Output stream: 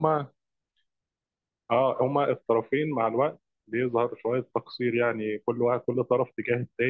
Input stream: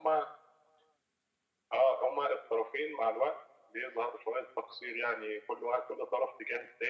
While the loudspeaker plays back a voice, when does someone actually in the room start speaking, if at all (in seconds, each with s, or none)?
none